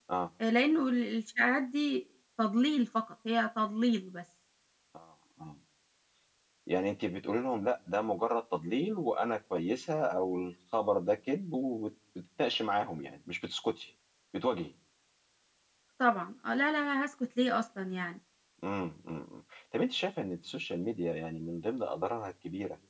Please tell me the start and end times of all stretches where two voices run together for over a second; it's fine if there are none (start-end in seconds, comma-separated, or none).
none